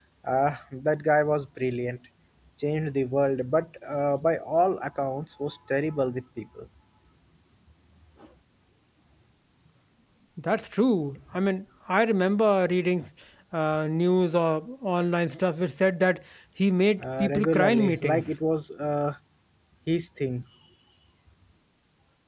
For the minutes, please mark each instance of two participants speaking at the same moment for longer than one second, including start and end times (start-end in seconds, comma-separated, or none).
17.0-18.3